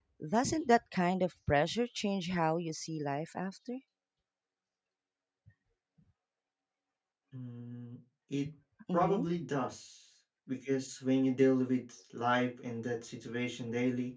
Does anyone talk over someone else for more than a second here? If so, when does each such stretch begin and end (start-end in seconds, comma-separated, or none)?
none